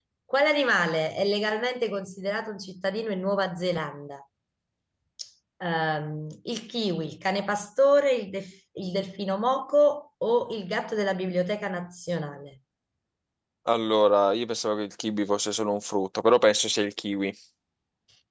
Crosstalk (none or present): none